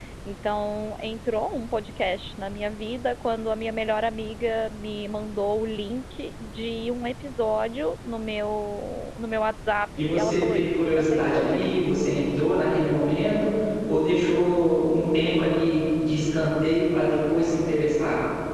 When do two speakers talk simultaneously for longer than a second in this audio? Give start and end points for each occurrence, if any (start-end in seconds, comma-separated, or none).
10.1-11.7